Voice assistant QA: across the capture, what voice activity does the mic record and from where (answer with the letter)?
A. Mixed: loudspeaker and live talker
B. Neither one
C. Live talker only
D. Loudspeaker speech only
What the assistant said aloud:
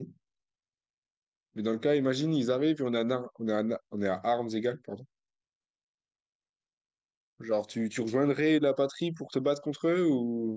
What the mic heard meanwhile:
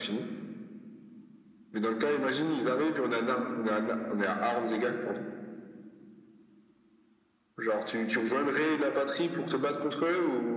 D